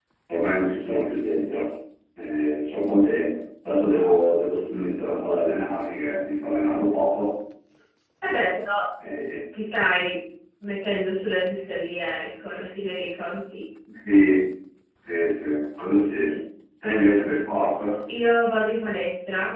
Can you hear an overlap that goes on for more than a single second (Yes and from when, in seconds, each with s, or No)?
No